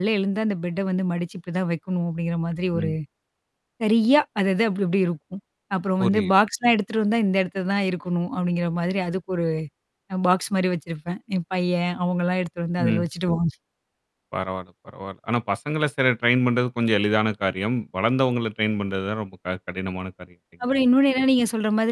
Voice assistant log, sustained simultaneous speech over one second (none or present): none